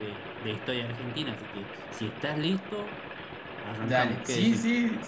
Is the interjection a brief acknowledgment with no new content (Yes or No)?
No